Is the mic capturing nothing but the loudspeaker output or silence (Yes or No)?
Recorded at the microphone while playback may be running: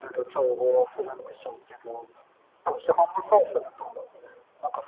Yes